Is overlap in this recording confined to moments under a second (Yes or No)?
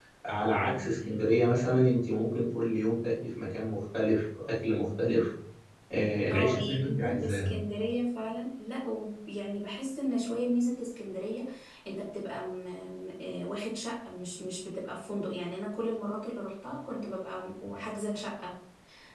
No